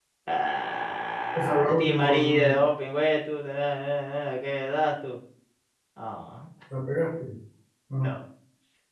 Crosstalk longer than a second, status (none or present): present